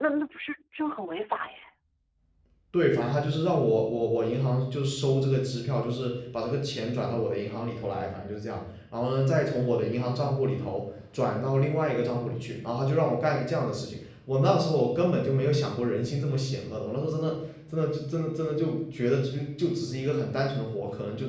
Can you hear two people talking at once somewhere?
No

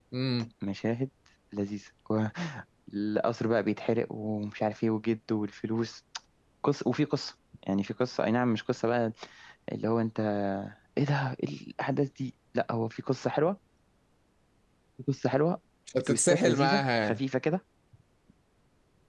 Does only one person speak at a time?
No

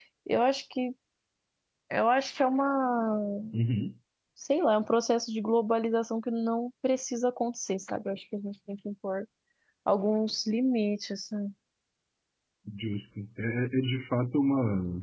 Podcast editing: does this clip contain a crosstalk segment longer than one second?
No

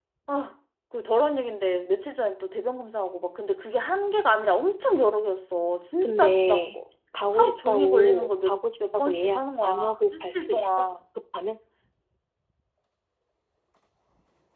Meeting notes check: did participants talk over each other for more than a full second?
Yes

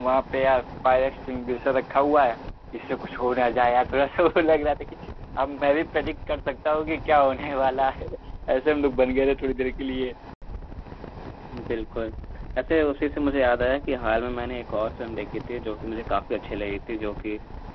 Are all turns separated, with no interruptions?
Yes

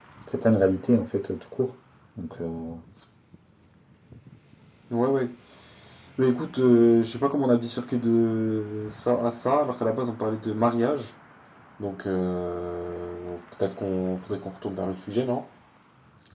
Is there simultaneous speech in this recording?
No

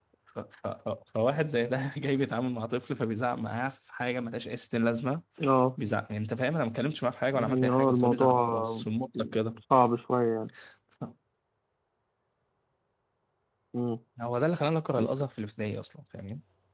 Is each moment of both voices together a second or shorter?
No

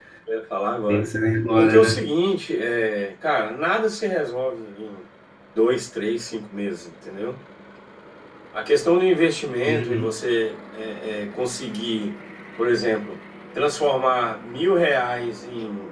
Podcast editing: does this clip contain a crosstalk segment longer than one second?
No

